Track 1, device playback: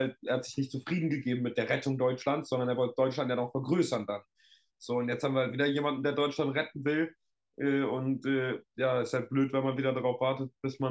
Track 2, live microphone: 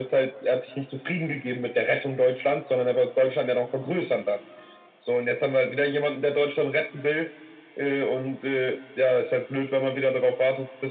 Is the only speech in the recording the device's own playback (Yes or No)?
Yes